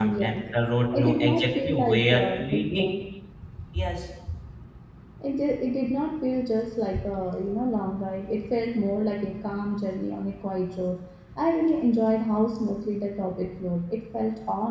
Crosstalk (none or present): present